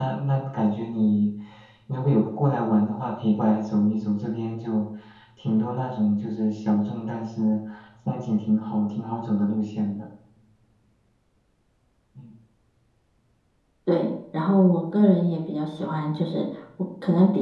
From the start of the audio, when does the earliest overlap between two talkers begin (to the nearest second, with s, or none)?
none